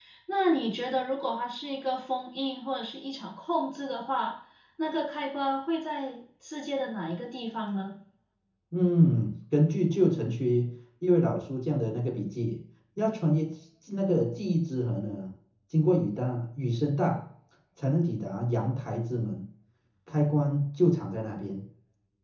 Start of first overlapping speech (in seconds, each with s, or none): none